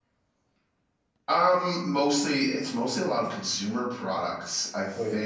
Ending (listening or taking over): listening